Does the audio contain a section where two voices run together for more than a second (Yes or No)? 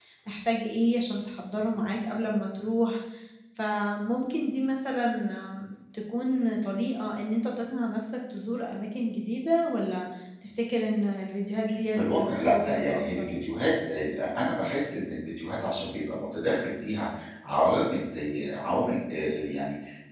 Yes